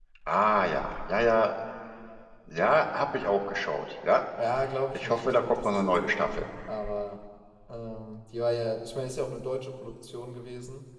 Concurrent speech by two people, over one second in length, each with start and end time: 4.9-6.4

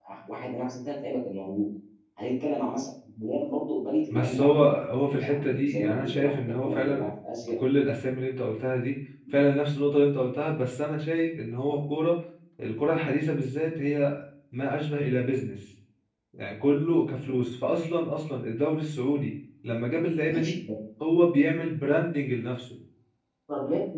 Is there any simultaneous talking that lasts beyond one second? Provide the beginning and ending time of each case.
4.1-7.1

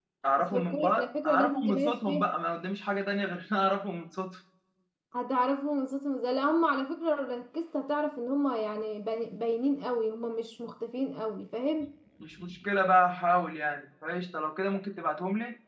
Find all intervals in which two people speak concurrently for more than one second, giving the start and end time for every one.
0.5-2.3

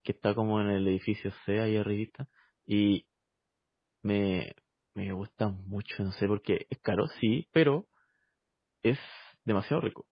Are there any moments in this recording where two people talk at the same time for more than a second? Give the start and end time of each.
none

